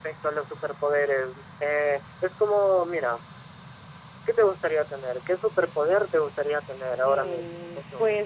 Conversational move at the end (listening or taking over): taking over